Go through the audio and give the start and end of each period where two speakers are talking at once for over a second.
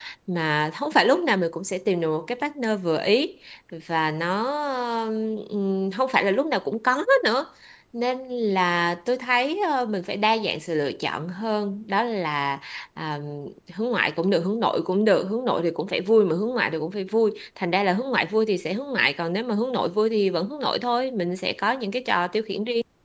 none

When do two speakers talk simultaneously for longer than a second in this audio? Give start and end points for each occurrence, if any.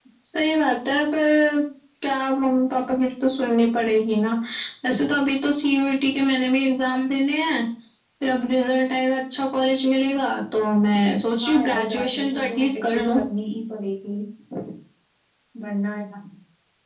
11.4-13.2

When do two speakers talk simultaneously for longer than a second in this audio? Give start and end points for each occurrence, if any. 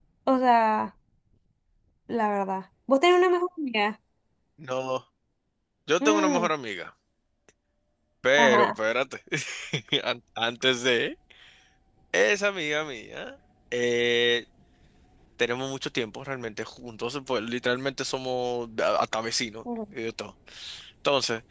none

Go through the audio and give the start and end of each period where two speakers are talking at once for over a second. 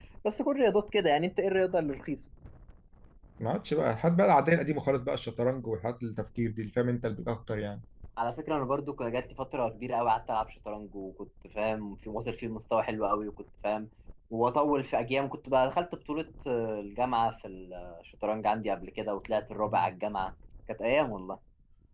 none

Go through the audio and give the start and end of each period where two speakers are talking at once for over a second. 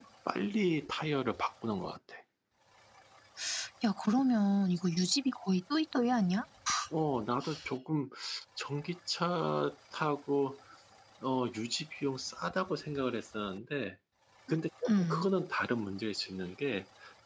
none

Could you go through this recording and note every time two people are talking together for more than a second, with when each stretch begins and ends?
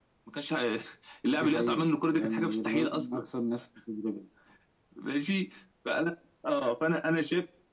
1.3-3.2

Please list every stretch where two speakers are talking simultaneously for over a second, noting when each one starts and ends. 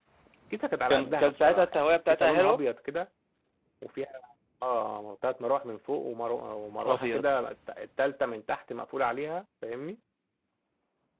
0.9-2.6

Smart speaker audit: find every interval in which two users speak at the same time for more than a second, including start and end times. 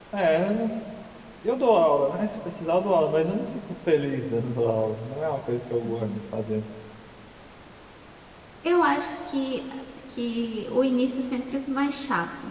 none

